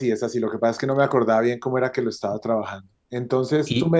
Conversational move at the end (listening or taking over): listening